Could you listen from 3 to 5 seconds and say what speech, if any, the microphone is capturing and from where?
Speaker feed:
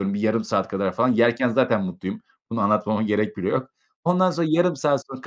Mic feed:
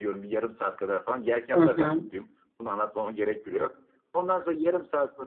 echo only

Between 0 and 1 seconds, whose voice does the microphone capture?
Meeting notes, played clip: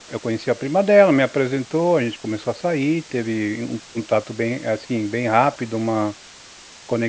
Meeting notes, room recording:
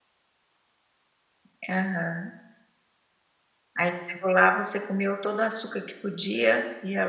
neither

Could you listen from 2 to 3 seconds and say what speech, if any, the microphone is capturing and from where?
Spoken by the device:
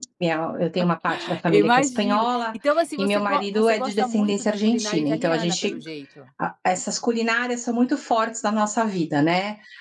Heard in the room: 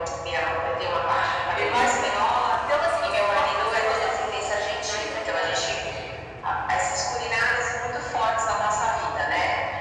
echo only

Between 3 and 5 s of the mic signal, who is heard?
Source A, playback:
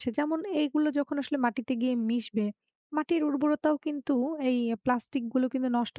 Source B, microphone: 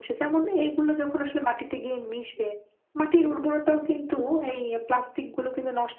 echo only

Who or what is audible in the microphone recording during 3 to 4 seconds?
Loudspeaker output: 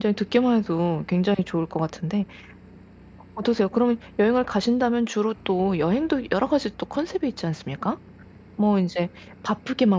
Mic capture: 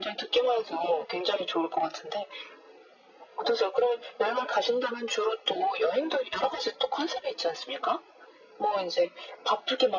echo only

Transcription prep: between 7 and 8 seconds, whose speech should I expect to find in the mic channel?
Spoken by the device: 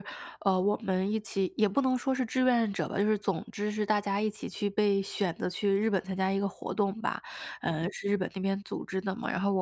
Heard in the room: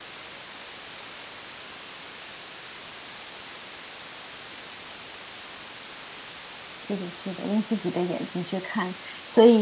user only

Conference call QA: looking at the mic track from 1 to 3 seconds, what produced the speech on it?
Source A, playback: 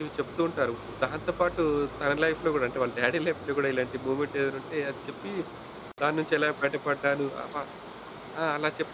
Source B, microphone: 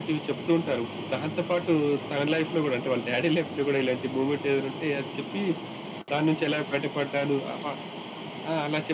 echo only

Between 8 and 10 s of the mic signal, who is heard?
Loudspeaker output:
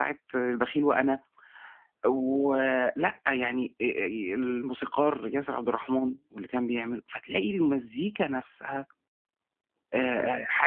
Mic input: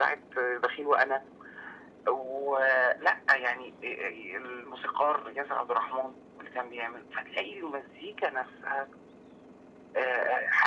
echo only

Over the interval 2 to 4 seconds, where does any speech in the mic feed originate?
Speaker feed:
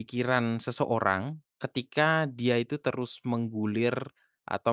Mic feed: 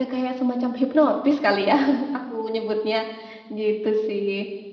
user only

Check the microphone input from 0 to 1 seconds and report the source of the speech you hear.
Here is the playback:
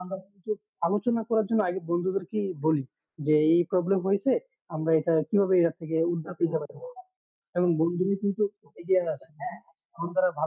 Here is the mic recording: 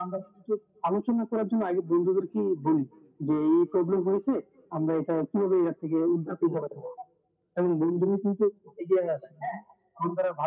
echo only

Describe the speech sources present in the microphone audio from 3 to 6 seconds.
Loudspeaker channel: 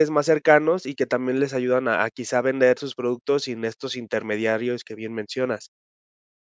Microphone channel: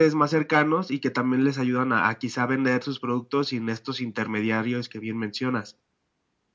echo only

